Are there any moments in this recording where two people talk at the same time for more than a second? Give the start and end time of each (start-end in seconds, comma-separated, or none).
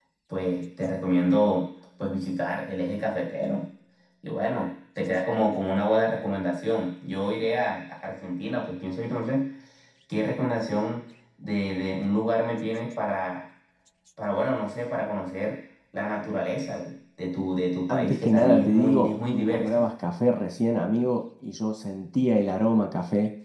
17.9-19.9